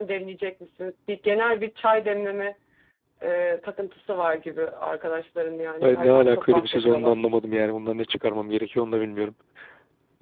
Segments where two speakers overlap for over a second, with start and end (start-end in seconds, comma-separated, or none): 5.8-7.2